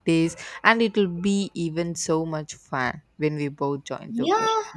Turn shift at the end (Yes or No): Yes